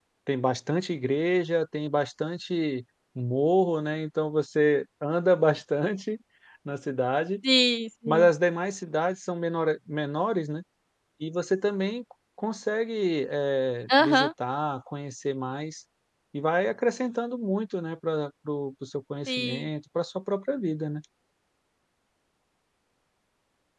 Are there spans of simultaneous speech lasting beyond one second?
No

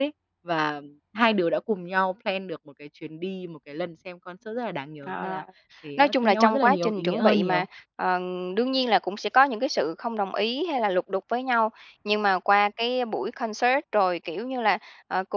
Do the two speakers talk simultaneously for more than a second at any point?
Yes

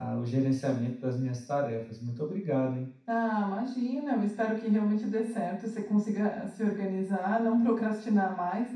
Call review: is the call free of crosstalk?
Yes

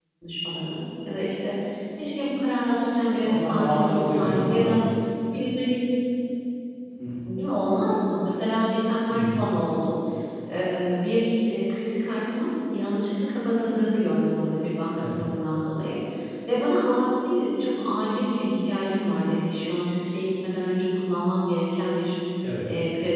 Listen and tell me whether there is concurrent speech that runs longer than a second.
Yes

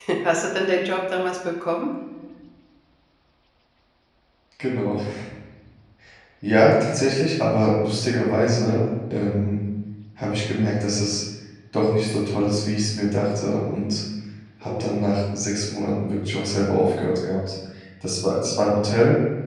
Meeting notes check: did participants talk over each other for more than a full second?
No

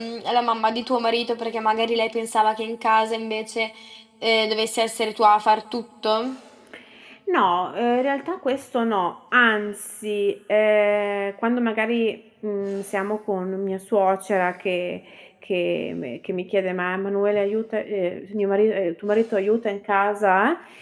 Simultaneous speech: No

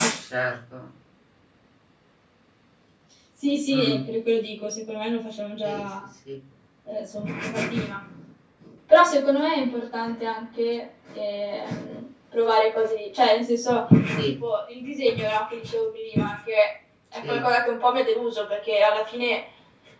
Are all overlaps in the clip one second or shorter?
Yes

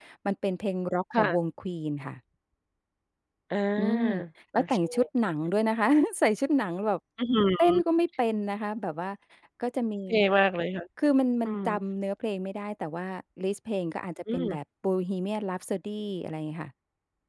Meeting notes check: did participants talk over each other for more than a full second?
No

